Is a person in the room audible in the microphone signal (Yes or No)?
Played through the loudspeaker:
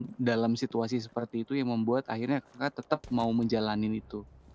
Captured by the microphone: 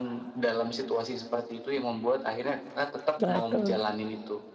Yes